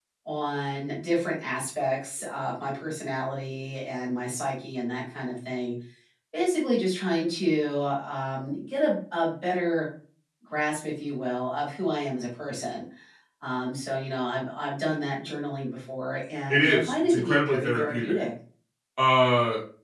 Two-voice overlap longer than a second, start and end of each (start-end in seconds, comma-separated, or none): 16.5-18.2